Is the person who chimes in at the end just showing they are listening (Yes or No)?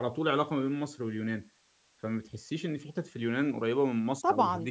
No